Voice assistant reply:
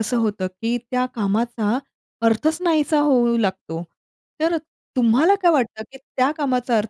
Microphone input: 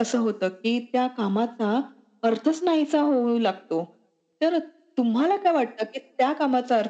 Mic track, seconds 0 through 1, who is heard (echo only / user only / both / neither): echo only